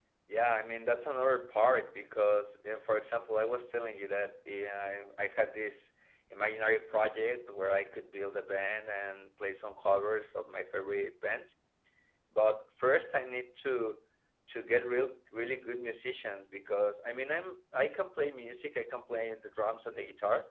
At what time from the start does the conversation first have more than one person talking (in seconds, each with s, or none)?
none